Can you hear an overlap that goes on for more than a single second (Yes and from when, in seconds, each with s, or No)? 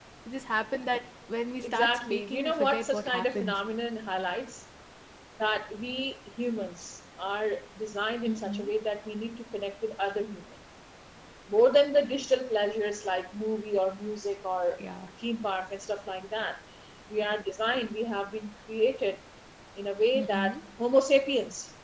Yes, from 1.6 s